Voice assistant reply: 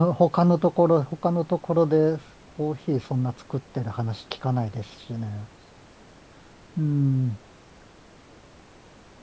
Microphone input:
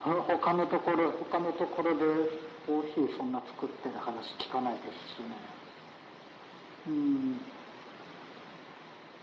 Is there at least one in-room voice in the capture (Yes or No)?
No